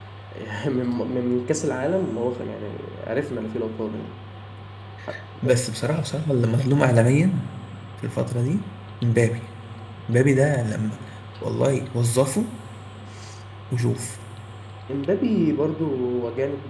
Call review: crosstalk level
none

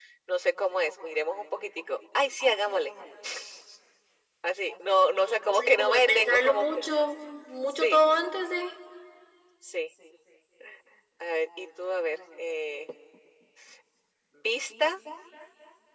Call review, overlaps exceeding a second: present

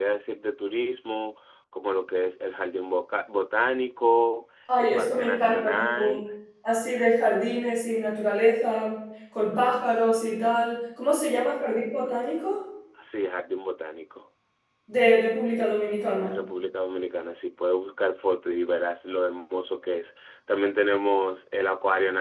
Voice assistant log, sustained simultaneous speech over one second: present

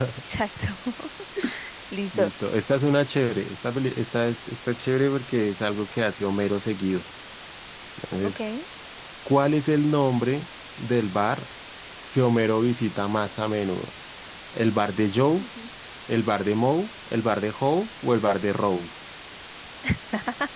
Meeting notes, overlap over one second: none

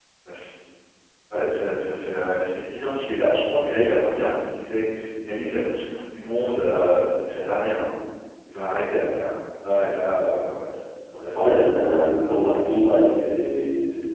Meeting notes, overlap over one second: present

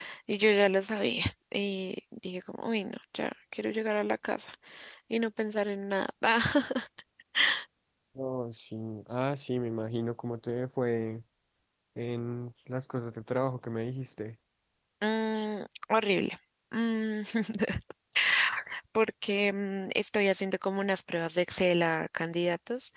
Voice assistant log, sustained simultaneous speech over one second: none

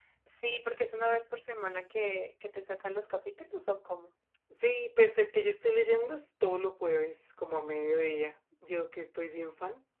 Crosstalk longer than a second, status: none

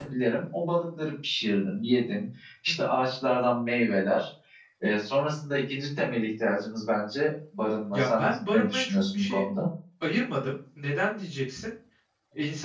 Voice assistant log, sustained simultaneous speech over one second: present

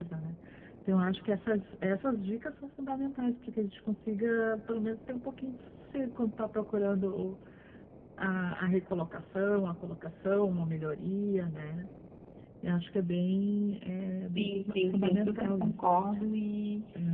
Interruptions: present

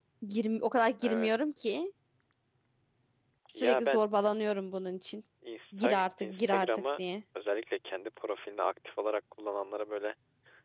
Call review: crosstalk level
present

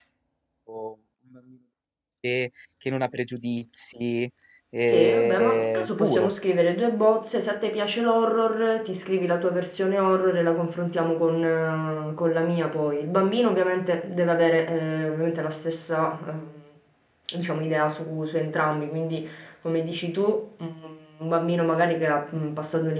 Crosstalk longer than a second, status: present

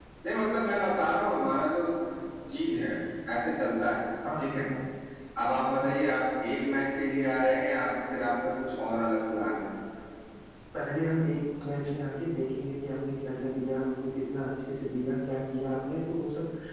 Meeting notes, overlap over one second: none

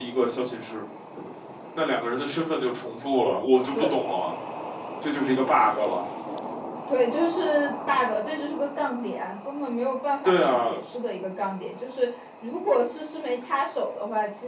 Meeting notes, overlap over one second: none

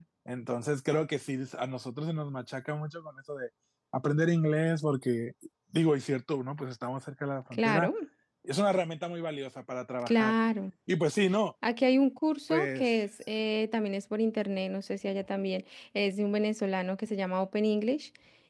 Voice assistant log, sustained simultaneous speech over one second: none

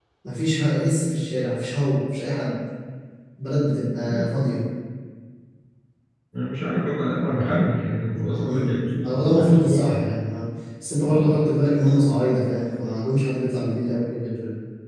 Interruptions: present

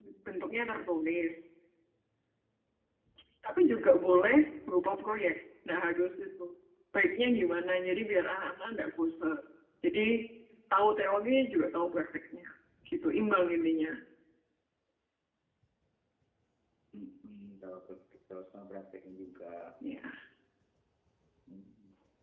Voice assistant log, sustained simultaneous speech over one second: none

